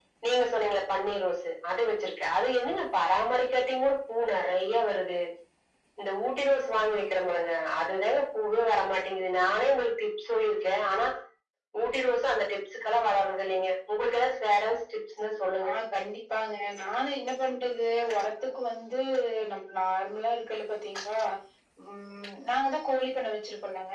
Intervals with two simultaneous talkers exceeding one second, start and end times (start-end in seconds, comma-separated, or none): none